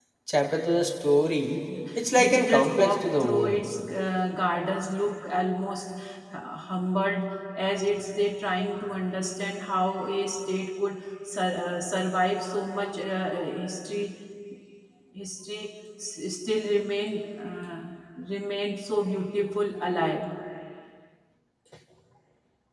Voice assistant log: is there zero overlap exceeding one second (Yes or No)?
No